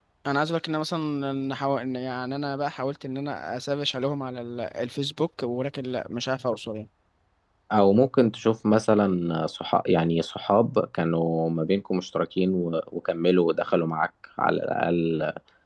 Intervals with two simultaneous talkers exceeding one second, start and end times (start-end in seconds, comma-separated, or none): none